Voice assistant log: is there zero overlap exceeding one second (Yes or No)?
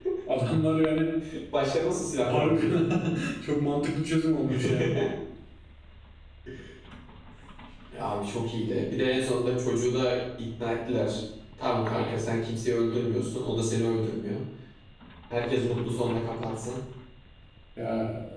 Yes